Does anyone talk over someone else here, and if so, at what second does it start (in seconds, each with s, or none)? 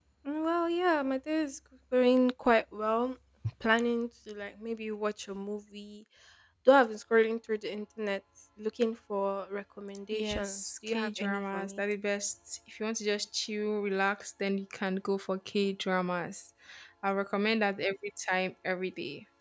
10.1 s